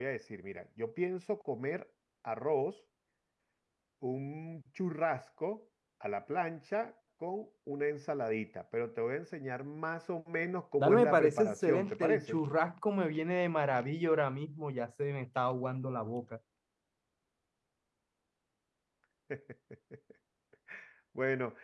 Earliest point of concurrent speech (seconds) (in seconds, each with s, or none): 10.8 s